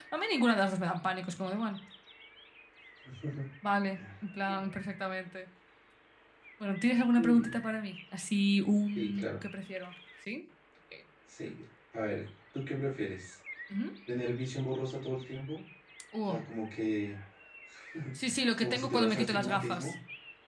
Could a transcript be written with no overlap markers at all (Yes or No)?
No